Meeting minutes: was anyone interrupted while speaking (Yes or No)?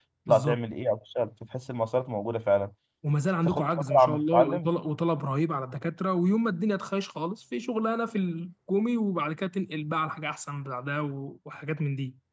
Yes